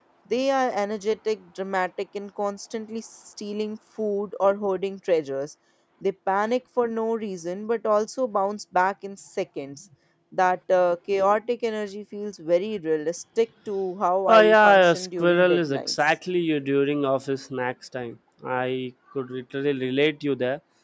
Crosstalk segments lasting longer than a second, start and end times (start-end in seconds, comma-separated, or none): 14.3-15.9